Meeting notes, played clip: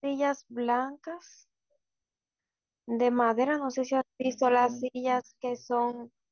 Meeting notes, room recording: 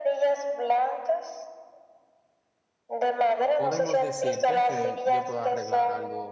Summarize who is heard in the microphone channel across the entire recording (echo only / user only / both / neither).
both